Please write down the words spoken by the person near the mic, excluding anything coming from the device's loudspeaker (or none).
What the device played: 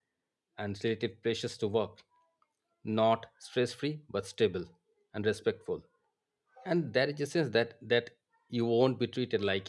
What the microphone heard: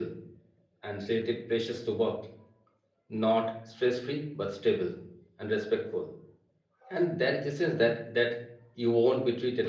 none